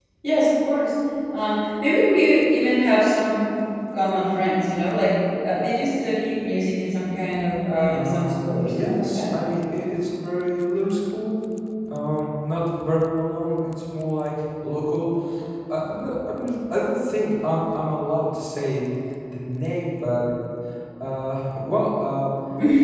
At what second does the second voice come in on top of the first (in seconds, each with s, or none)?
7.9 s